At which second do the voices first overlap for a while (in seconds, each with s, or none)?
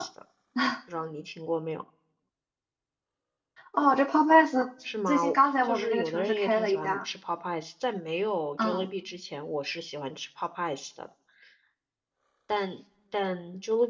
5.1 s